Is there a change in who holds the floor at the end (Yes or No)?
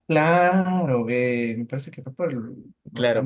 Yes